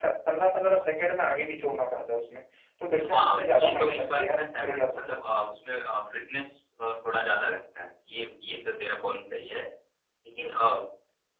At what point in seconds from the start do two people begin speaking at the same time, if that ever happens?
3.0 s

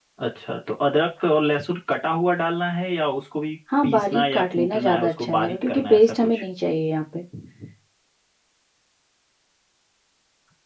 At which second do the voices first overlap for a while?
3.7 s

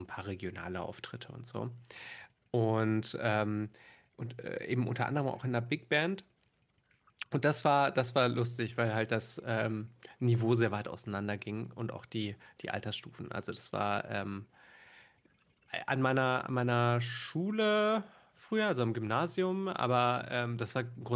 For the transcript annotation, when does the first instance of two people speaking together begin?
none

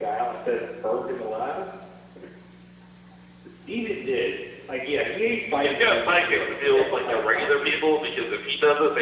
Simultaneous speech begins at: 5.6 s

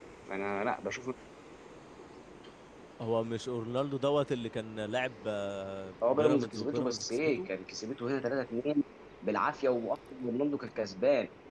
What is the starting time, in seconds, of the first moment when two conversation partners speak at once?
6.0 s

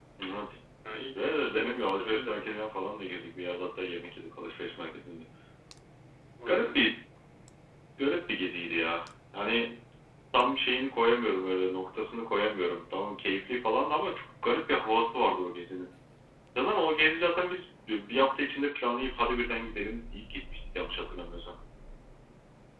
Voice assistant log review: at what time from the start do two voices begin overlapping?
1.2 s

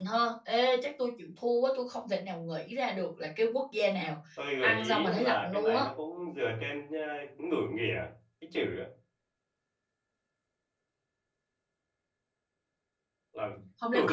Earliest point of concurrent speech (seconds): 4.6 s

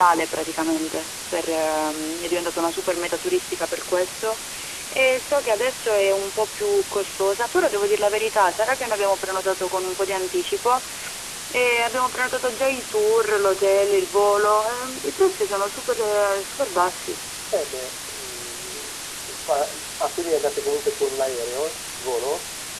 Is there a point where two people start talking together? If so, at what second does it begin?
none

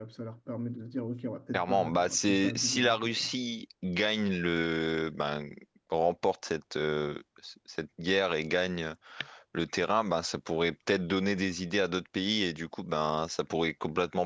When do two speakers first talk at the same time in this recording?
1.5 s

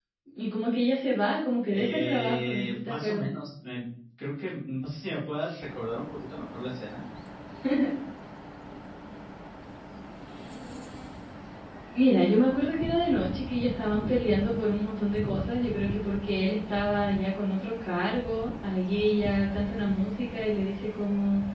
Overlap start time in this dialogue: 1.7 s

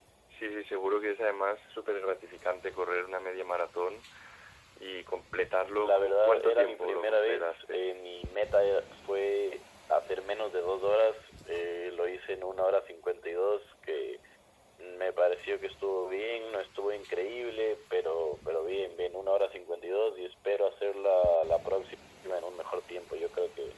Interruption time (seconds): 5.8 s

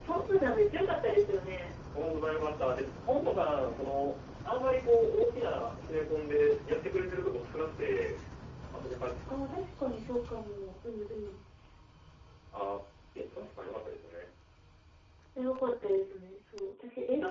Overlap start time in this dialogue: none

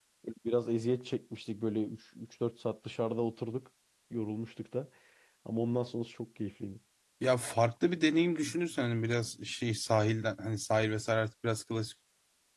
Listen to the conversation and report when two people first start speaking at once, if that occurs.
none

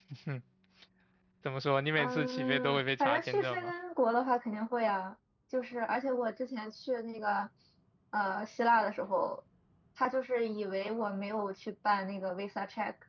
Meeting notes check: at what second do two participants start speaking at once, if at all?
2.0 s

